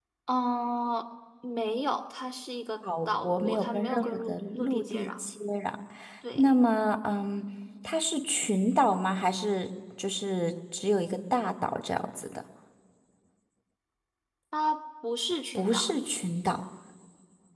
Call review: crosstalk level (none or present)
present